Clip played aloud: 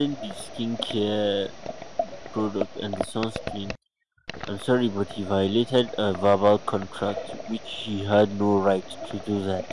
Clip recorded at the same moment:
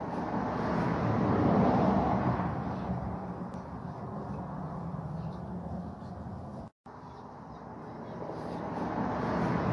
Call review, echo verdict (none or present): none